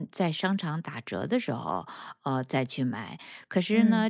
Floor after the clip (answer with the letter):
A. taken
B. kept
B